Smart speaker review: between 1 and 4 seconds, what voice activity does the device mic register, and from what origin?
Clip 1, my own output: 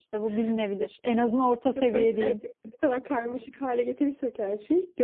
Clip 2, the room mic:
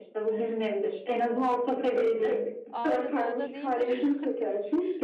both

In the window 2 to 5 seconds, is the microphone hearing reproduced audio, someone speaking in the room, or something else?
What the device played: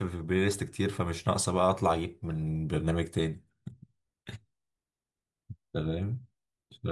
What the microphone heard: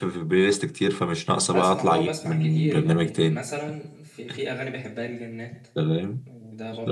both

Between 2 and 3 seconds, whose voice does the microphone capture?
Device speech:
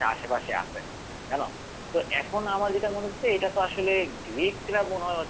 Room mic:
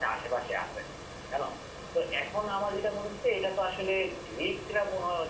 echo only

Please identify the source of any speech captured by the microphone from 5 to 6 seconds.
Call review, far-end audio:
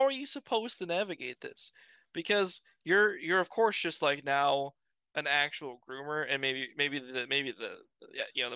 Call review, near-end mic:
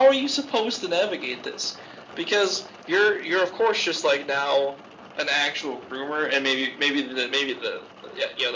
echo only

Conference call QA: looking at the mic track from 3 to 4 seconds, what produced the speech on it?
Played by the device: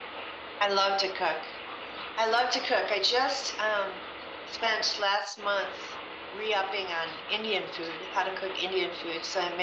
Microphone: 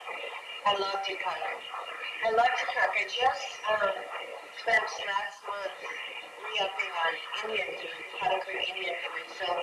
echo only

